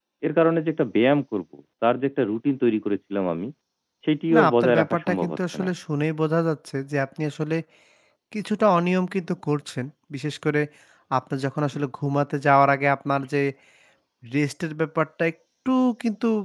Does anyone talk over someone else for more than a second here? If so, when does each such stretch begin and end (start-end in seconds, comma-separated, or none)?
4.3-5.7